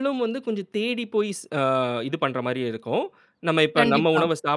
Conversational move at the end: listening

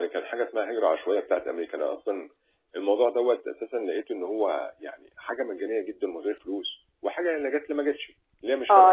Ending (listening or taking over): taking over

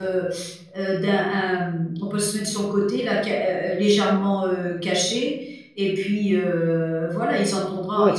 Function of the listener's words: listening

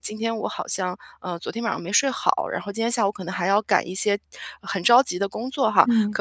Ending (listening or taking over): listening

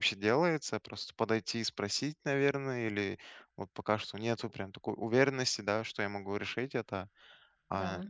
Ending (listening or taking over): listening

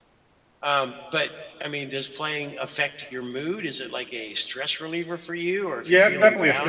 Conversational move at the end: taking over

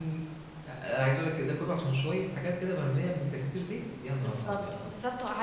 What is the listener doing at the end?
taking over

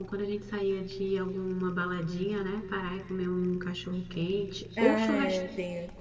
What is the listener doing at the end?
taking over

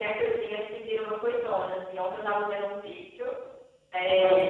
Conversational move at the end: listening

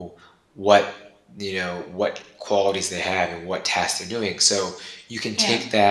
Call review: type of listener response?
listening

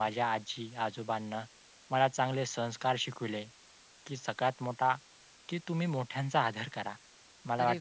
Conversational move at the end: listening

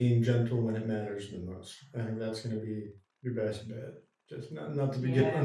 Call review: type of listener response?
listening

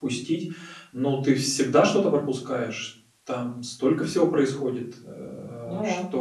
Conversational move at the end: listening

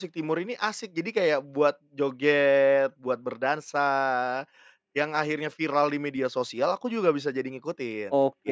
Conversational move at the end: taking over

